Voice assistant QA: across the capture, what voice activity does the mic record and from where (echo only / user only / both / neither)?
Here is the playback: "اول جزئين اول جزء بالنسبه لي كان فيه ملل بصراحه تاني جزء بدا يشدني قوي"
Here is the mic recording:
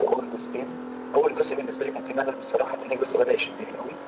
echo only